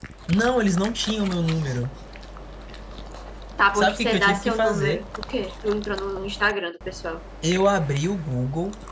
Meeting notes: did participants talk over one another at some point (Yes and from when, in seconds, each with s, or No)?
Yes, from 3.8 s